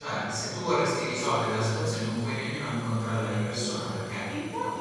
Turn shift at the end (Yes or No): Yes